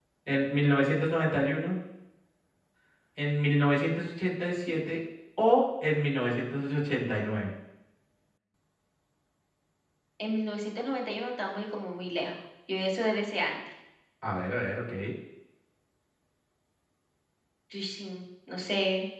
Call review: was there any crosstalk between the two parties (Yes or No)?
No